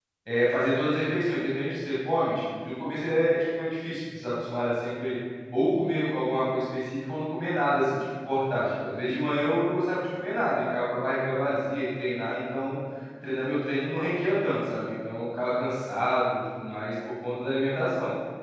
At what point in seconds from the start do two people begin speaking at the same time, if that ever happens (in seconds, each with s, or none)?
none